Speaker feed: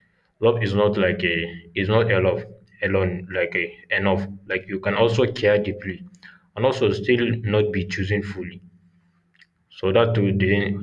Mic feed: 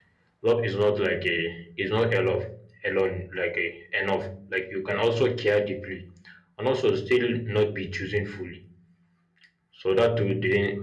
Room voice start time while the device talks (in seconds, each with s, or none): none